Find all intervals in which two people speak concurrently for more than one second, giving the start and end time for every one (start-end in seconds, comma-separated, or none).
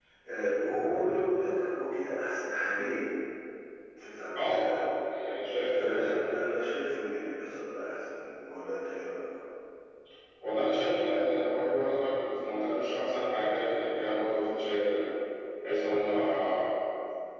none